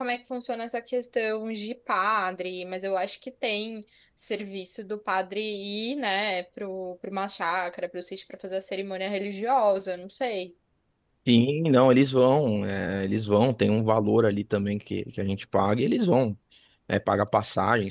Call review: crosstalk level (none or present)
none